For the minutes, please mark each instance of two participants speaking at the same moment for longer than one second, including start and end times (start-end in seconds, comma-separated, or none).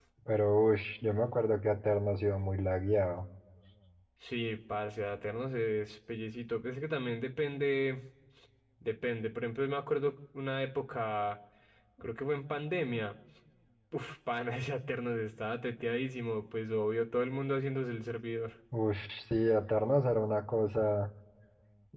none